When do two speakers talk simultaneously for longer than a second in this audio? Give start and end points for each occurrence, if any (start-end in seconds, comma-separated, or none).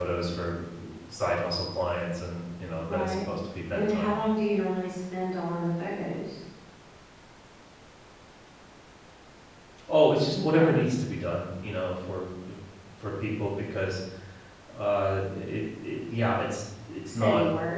none